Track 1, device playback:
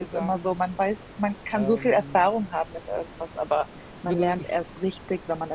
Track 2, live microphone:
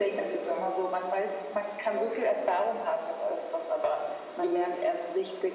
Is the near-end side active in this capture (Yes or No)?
No